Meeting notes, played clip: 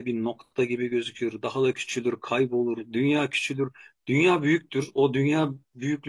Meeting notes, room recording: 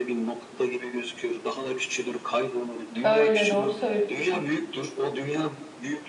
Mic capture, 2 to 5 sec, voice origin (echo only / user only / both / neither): both